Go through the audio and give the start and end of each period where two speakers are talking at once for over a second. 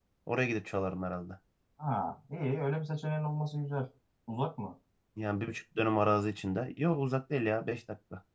none

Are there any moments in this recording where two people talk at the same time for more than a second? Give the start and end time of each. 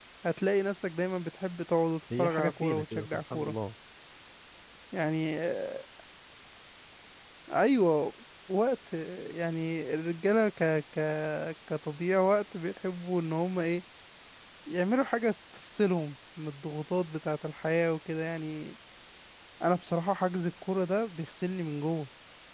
2.2-3.5

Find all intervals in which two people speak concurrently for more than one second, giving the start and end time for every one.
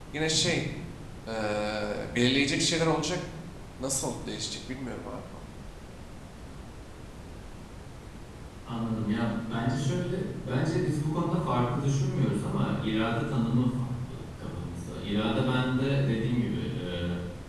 none

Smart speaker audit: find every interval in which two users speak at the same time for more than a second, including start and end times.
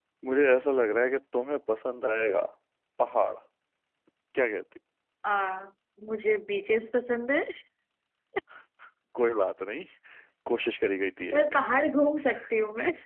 none

